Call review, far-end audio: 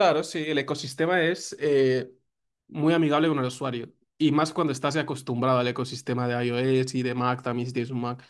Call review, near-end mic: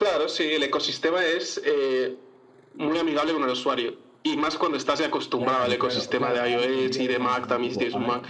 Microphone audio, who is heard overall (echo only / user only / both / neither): both